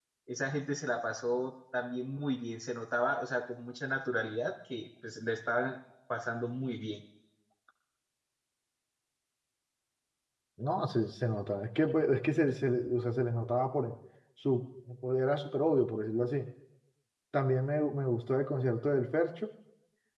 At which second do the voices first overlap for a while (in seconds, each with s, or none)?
none